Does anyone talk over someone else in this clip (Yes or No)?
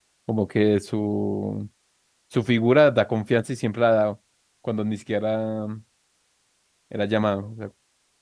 No